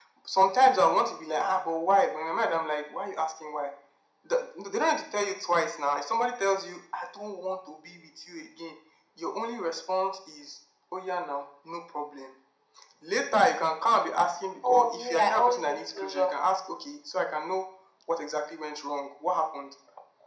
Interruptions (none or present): present